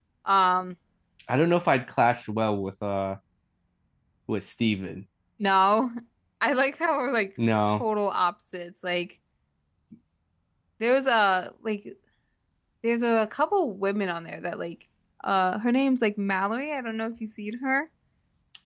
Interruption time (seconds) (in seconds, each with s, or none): none